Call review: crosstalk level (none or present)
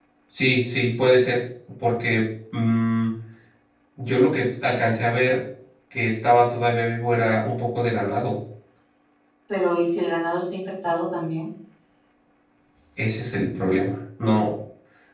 none